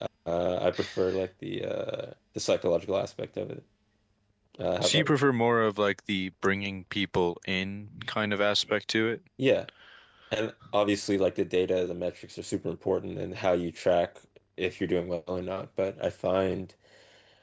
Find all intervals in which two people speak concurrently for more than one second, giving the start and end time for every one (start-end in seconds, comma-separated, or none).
none